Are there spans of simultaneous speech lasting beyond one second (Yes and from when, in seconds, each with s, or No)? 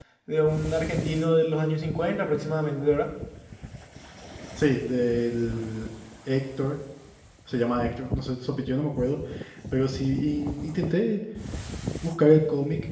No